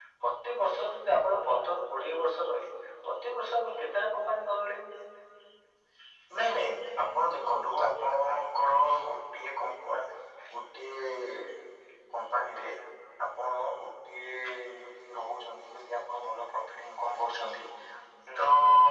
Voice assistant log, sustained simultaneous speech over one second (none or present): none